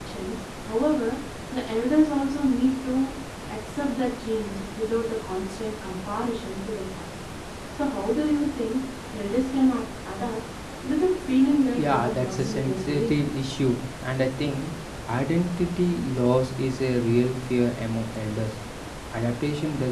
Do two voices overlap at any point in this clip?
Yes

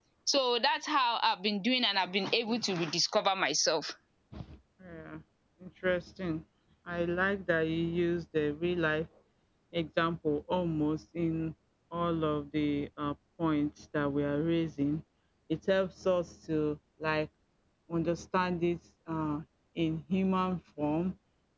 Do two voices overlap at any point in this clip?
No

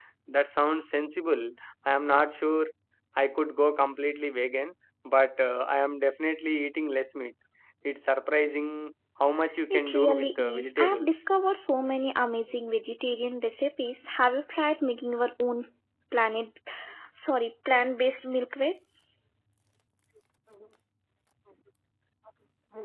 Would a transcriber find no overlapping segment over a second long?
No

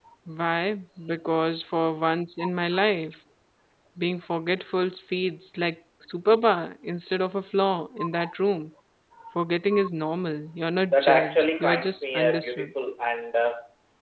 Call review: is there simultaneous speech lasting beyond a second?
Yes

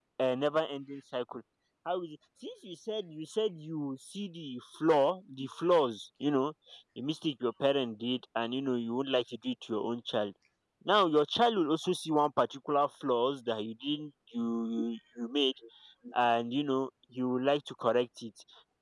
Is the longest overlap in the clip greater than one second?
No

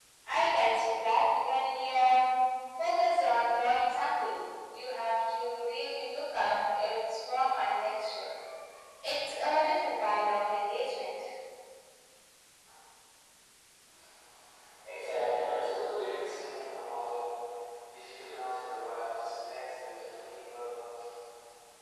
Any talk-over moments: No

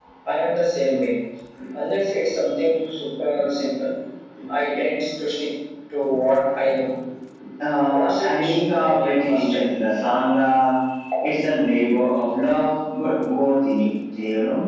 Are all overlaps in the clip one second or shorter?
No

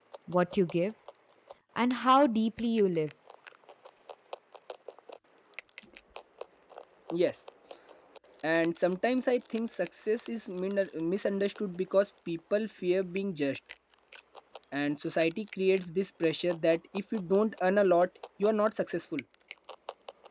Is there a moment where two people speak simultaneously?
No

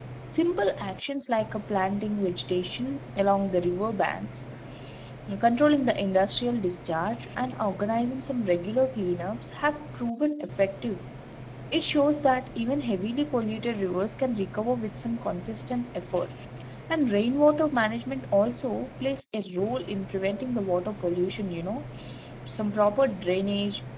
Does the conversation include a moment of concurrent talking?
No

